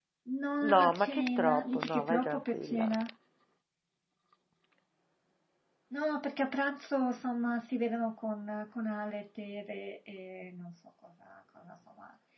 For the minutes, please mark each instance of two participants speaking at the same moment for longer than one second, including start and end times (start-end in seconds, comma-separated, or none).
0.7-2.9